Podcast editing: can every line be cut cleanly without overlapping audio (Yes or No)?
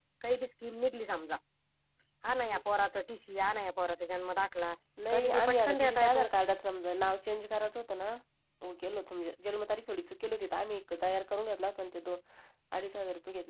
No